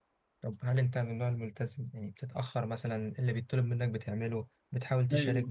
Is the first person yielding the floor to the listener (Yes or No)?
Yes